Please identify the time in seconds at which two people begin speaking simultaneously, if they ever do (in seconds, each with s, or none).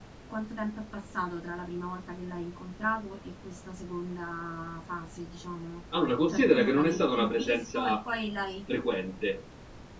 6.3 s